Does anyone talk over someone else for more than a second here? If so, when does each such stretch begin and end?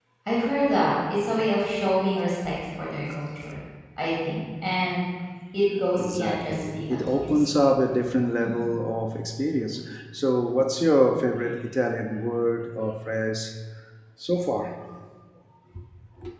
6.0-7.5

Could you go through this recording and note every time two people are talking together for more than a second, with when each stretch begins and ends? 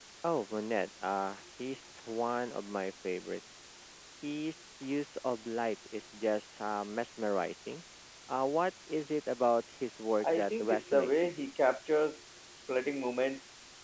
10.2-11.5

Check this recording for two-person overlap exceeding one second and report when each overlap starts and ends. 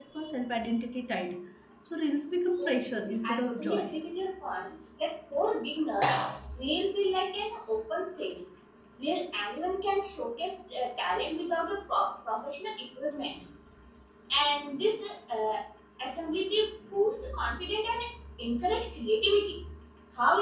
2.6-4.0

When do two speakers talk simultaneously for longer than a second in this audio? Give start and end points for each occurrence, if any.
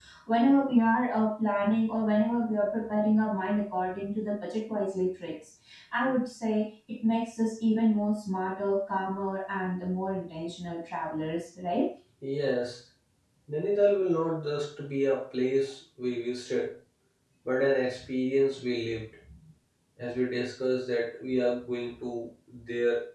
none

